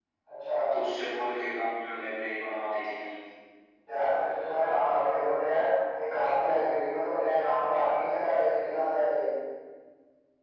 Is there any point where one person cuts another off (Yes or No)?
No